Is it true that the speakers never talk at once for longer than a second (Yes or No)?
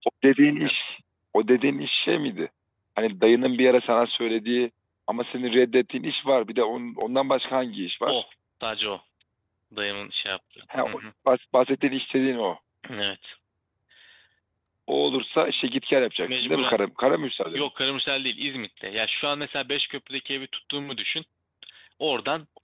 Yes